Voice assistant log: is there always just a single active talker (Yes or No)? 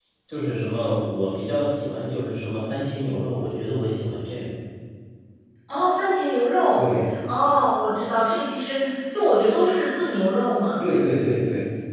Yes